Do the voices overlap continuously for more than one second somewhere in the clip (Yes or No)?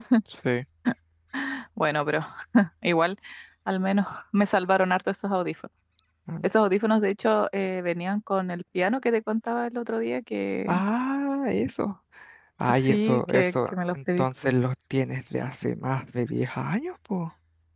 Yes